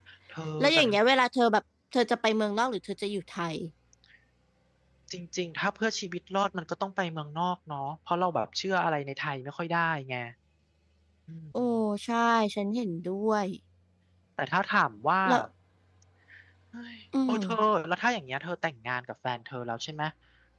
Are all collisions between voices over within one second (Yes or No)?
Yes